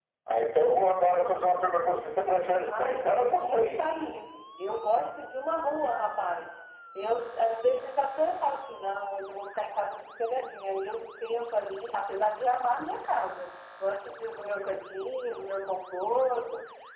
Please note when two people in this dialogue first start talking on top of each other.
2.7 s

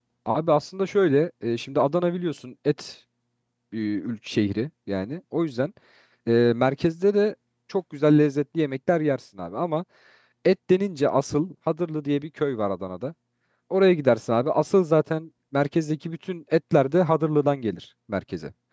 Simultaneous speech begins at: none

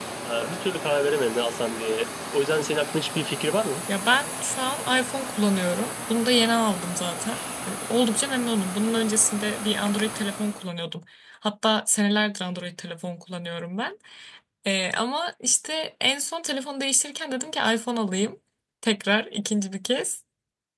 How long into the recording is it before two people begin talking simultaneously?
none

